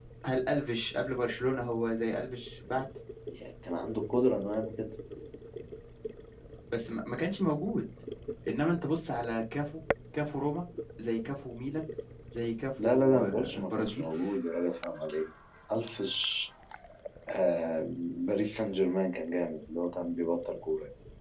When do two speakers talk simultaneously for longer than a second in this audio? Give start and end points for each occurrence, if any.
12.8-14.1

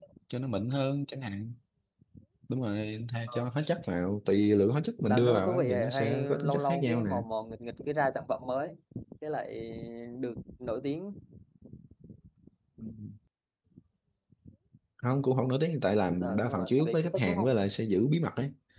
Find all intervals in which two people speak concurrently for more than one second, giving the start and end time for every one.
5.0-7.1, 16.2-17.5

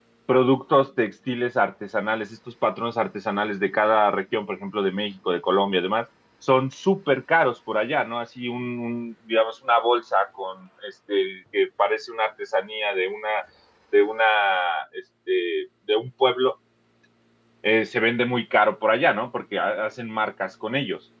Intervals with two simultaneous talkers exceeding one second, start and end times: none

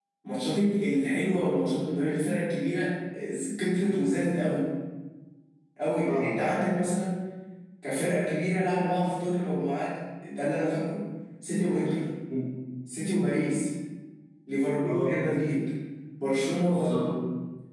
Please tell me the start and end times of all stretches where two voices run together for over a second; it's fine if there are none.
none

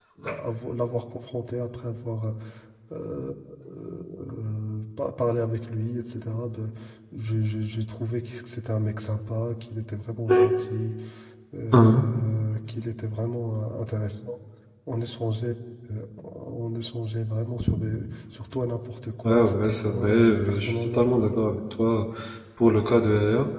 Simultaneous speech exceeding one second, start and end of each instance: 19.2-21.3

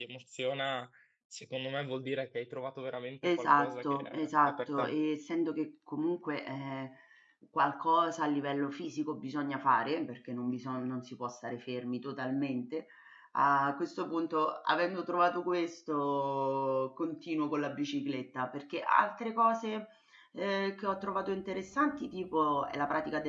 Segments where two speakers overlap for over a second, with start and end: 3.2-4.9

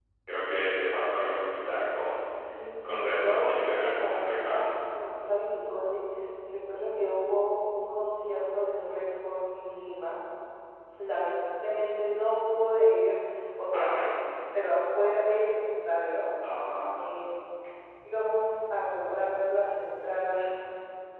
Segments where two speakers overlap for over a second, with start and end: 2.8-4.6

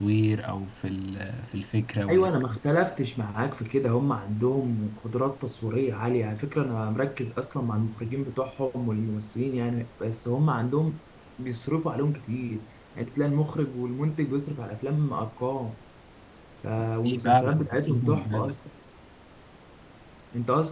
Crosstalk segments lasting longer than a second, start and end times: 17.2-18.6

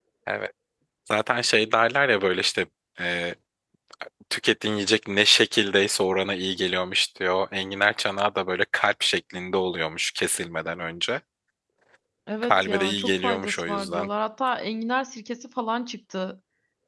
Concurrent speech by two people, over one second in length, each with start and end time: 12.4-14.1

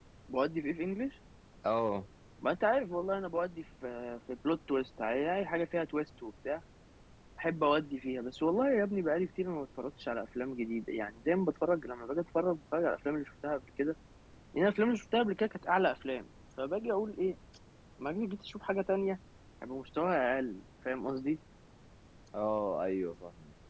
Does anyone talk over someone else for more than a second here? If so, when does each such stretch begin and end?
none

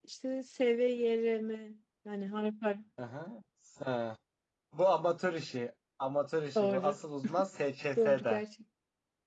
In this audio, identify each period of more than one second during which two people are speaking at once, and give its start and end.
none

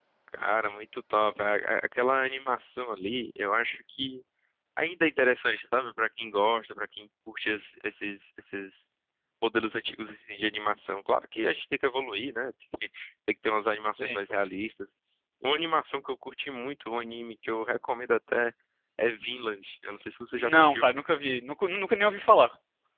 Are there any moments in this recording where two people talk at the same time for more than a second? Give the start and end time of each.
none

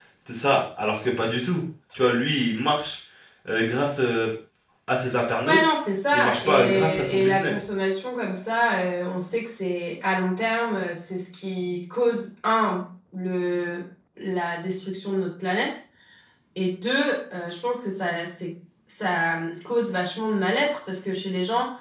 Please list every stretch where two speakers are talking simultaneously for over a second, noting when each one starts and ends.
6.1-7.5

